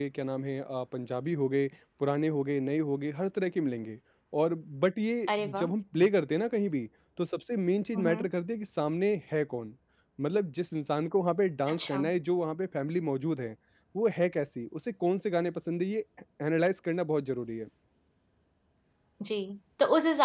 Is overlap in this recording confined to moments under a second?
Yes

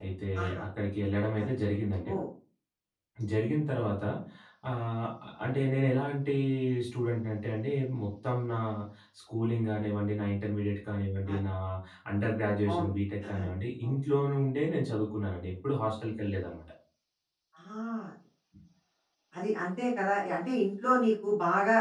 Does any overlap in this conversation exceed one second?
No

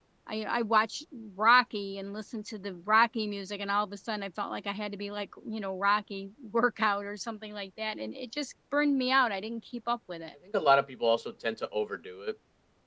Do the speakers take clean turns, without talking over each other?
Yes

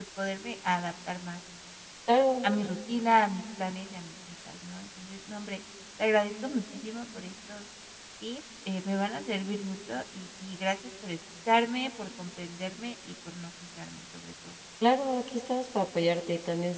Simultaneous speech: No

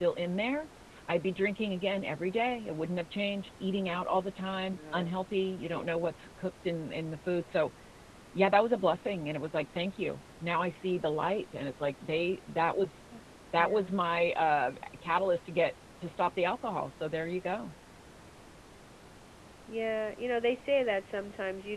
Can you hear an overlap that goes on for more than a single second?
No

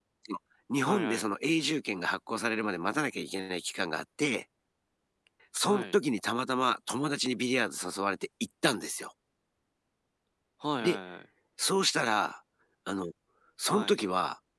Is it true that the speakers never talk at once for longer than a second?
Yes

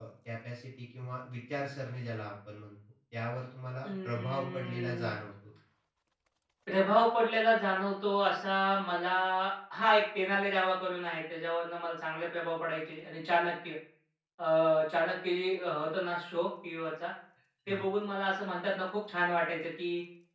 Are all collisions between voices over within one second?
No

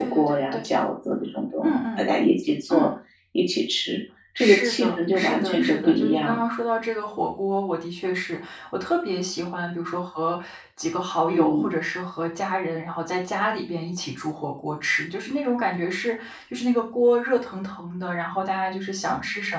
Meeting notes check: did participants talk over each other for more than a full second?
Yes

